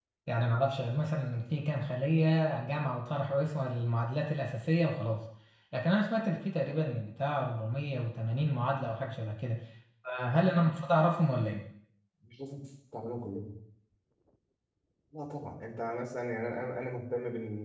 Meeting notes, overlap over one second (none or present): none